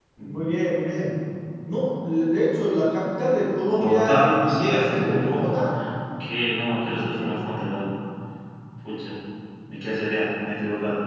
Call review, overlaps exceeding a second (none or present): present